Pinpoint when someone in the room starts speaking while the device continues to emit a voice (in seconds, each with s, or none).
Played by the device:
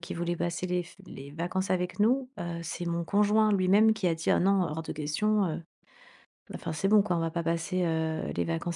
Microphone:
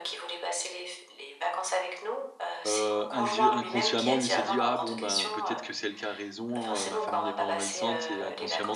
2.6 s